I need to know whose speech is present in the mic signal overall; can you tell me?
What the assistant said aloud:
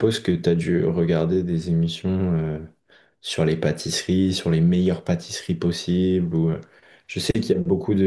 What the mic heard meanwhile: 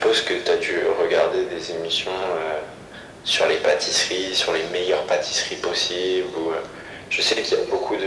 echo only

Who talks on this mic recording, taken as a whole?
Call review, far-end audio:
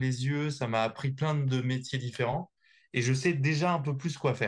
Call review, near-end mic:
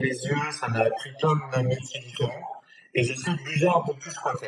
echo only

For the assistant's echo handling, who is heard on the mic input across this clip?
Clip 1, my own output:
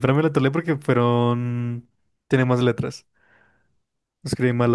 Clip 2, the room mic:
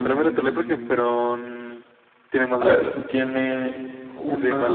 both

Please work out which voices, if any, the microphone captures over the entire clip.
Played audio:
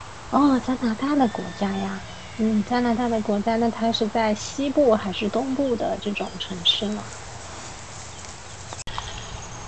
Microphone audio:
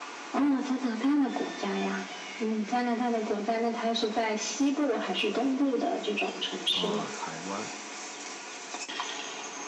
both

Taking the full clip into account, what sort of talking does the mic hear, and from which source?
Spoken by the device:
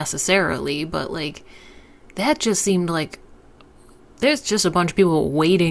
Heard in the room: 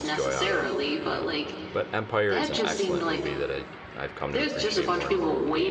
both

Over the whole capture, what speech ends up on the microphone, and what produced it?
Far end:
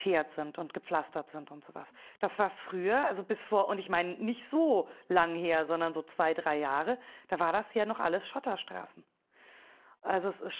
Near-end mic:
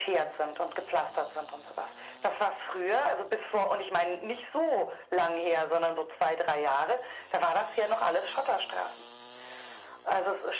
echo only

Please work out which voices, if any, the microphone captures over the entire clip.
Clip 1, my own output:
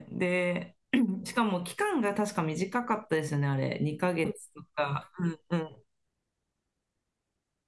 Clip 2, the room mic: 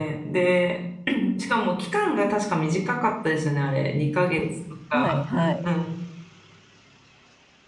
both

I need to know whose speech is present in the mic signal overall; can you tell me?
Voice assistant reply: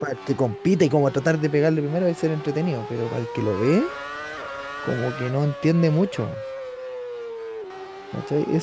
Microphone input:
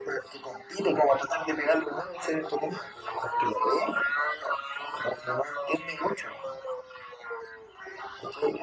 echo only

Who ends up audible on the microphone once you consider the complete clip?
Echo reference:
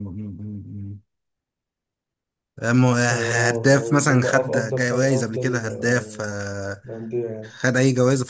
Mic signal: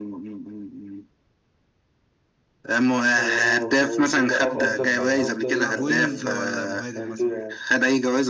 both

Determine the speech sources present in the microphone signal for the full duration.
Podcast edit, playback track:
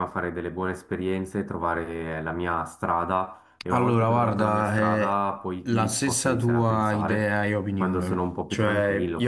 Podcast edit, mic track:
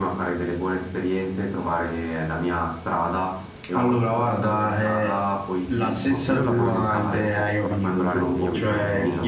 both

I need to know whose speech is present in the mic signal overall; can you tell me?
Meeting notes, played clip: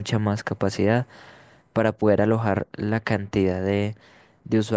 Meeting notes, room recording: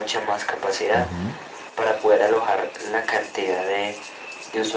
both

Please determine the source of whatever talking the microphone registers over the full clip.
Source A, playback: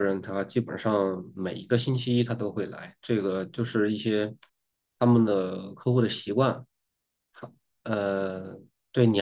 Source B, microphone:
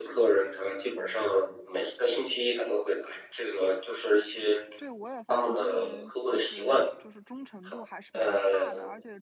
both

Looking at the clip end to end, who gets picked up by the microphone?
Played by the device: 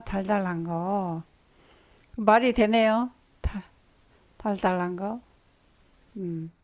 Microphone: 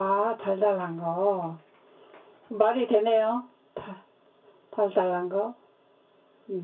echo only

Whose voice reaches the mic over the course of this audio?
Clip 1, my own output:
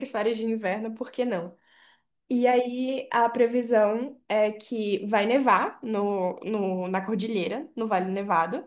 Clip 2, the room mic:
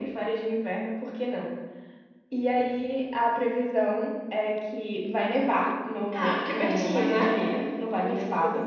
both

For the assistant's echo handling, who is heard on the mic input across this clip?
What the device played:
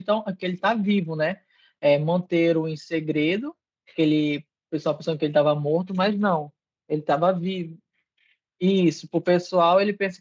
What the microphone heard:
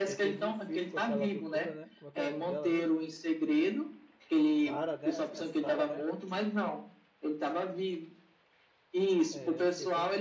both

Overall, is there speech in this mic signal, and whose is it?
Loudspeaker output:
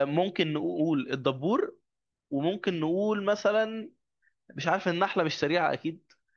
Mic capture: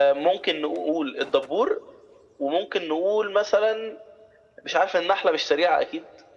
echo only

